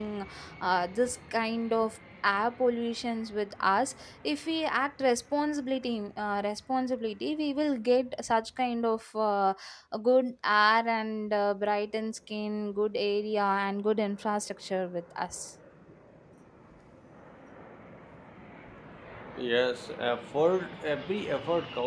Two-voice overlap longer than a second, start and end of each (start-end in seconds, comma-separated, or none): none